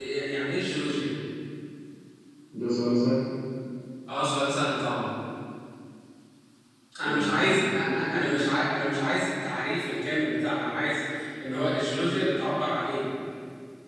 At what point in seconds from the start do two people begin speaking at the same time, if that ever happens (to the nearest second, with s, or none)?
7 s